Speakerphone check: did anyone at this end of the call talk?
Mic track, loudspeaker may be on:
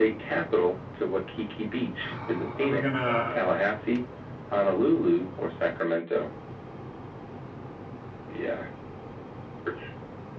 Yes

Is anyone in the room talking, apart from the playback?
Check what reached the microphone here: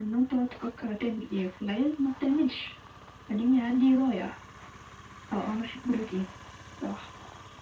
No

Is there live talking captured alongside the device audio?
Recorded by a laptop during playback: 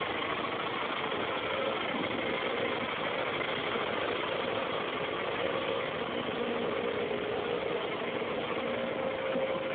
No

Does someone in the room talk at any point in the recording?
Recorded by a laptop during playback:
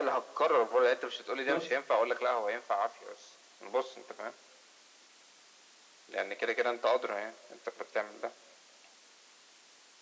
Yes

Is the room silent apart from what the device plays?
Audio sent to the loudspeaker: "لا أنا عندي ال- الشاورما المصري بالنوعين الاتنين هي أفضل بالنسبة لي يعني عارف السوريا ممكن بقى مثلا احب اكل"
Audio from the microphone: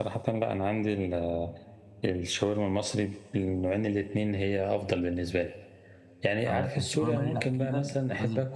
No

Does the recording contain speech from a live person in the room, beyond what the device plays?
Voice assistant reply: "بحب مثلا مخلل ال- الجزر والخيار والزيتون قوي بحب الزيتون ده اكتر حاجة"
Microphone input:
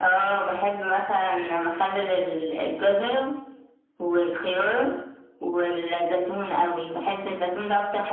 No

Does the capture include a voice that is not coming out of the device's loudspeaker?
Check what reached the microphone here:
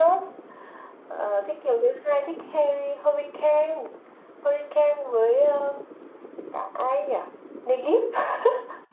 No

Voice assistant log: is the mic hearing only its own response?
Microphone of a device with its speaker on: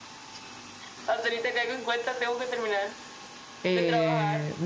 No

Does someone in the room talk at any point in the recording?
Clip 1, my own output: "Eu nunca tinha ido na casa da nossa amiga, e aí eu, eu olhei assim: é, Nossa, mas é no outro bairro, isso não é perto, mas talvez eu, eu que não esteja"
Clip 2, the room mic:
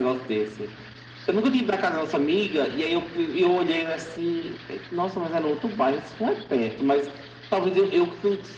No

